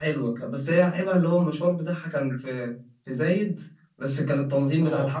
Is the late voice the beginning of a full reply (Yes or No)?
No